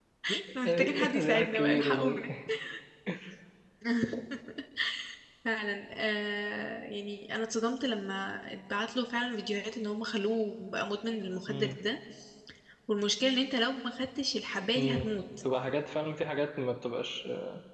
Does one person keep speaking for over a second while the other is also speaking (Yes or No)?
Yes